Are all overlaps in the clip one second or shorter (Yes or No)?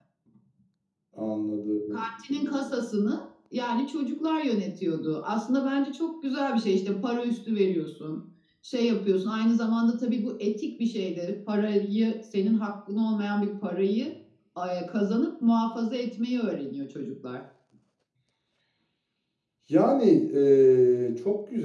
Yes